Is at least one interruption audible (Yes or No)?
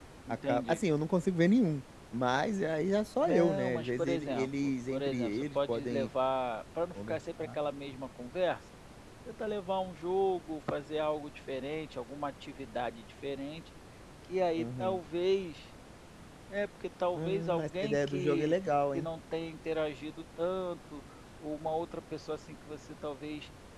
Yes